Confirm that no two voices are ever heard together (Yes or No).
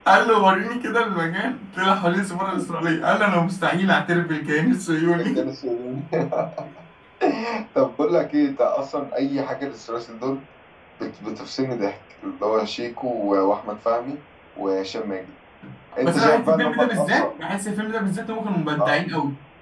No